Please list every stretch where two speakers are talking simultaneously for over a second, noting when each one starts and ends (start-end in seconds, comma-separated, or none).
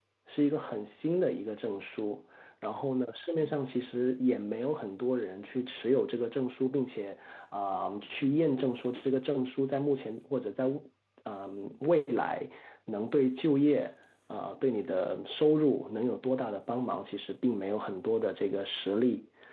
none